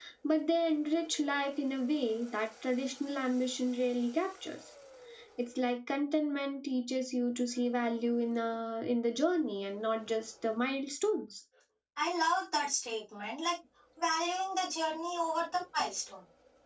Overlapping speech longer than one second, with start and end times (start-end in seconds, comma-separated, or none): none